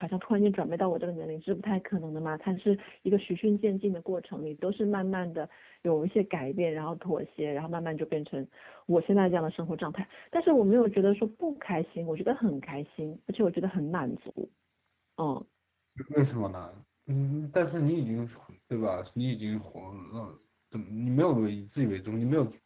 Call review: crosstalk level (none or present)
none